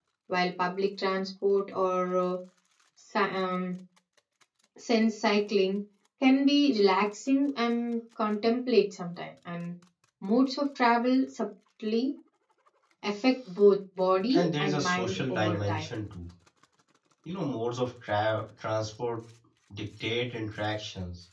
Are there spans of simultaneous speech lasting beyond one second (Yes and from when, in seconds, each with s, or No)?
Yes, from 14.3 s